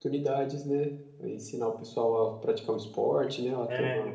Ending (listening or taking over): taking over